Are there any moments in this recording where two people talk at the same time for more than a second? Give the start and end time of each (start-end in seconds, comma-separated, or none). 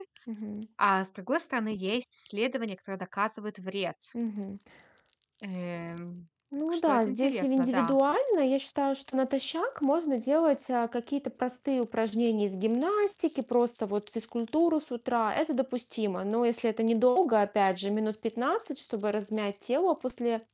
6.7-8.0